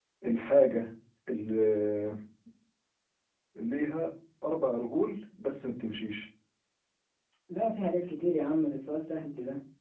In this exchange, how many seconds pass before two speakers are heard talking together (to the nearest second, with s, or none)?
none